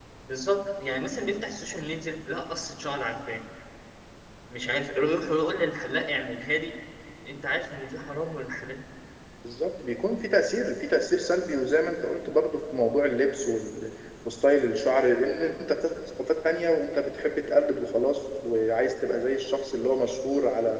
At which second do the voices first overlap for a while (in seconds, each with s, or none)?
none